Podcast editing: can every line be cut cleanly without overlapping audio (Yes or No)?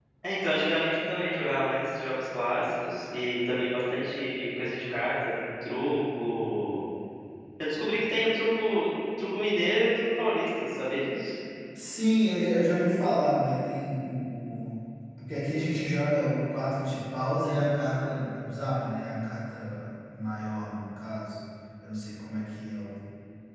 Yes